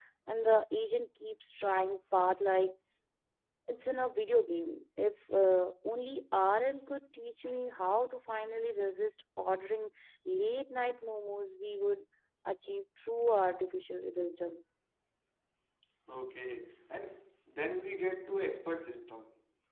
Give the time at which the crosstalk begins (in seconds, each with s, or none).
none